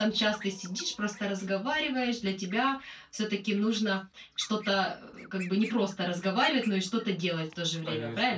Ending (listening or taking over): taking over